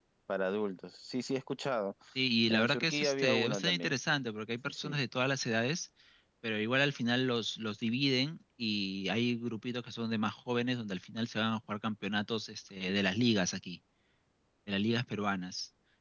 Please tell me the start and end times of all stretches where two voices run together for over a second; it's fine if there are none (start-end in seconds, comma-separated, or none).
2.5-3.9